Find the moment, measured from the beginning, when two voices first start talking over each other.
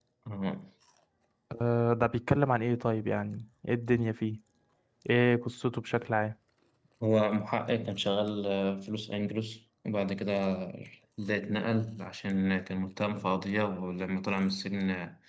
none

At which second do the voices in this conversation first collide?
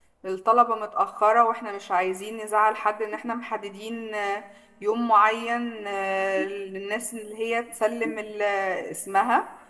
none

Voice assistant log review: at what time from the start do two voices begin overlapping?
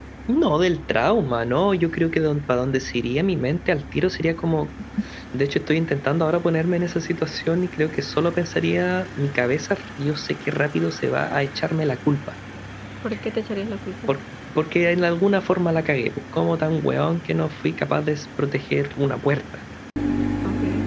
none

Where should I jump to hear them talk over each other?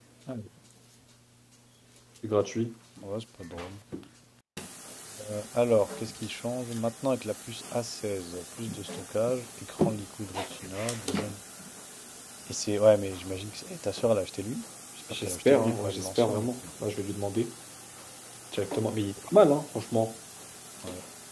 15.1 s

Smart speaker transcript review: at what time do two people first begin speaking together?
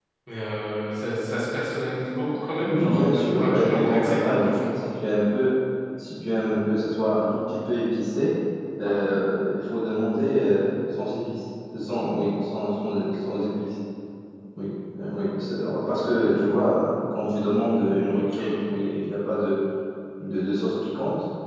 2.7 s

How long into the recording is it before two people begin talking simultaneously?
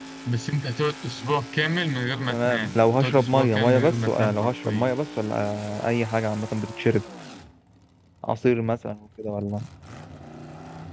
2.3 s

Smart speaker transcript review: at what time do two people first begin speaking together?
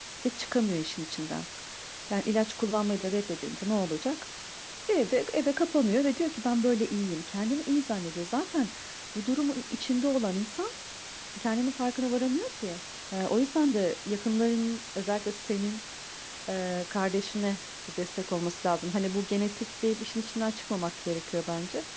none

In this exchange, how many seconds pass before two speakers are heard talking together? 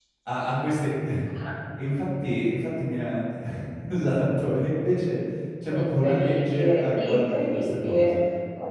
5.8 s

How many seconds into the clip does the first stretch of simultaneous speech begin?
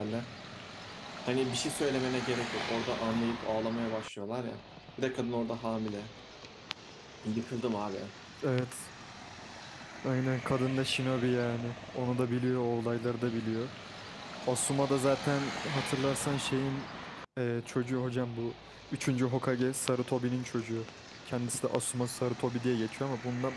none

